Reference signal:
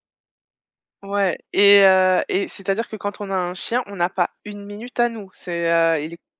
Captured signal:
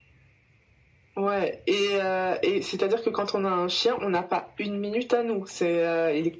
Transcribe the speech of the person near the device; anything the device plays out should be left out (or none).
none